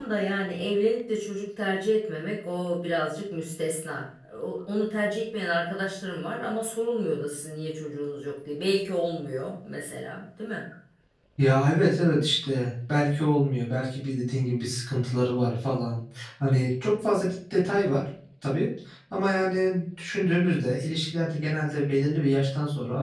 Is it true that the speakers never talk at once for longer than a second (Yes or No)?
Yes